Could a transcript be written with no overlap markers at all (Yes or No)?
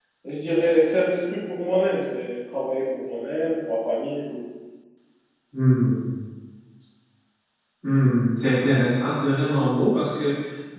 Yes